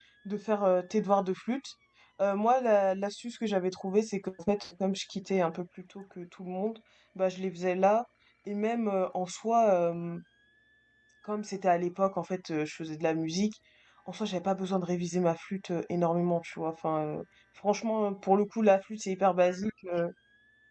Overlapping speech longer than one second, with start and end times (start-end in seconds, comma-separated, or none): none